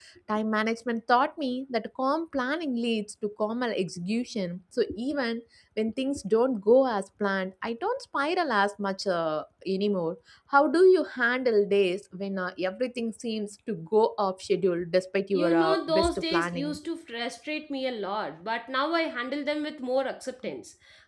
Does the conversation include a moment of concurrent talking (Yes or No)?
Yes